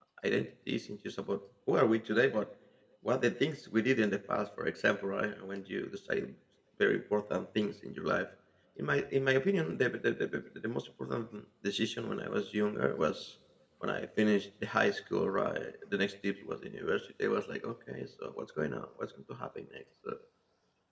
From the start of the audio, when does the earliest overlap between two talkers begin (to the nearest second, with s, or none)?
none